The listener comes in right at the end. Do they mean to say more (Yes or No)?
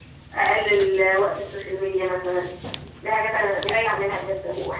No